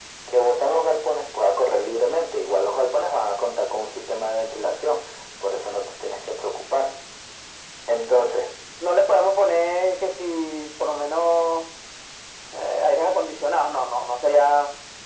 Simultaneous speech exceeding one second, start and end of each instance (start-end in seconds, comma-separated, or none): none